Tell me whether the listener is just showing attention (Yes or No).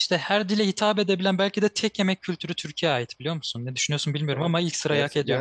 No